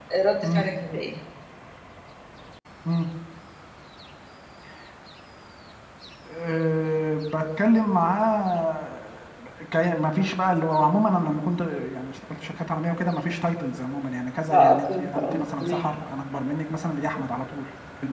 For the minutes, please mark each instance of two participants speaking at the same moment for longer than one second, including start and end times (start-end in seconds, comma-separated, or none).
14.5-15.8